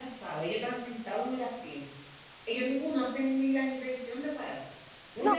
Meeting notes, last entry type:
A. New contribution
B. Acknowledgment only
B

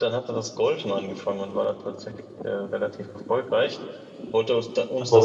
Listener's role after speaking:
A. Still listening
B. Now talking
A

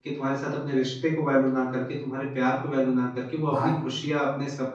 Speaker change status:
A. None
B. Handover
A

